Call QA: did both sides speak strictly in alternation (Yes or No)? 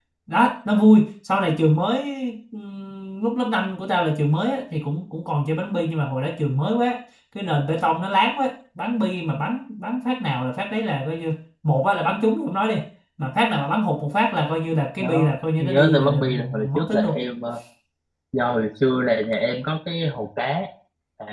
No